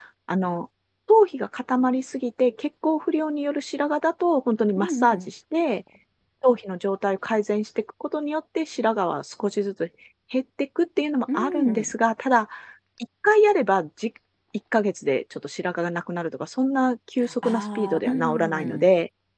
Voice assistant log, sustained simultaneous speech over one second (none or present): present